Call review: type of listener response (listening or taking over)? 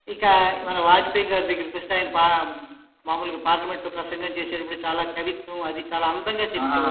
taking over